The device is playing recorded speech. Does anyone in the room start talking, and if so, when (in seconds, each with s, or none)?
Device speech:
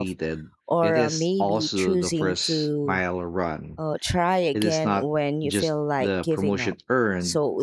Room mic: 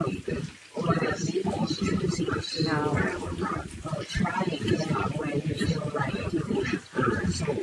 2.6 s